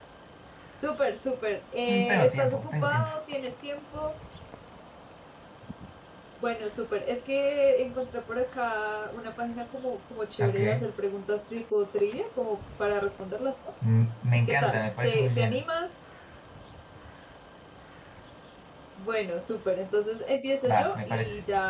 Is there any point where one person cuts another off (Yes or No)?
Yes